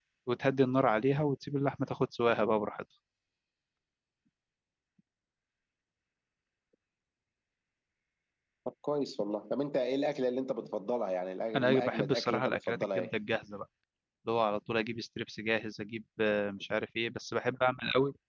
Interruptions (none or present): present